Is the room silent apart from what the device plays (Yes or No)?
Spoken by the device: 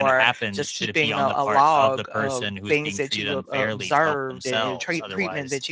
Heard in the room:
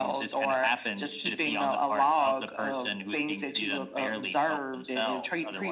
Yes